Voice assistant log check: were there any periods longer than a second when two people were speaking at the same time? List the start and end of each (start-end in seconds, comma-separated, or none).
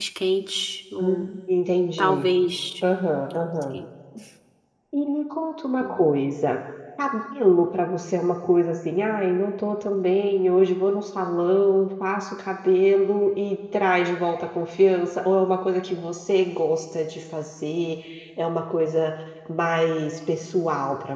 none